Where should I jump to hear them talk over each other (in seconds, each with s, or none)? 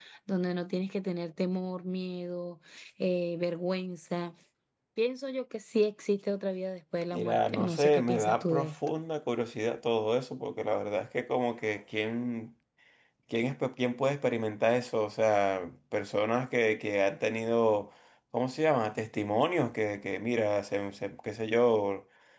7.1 s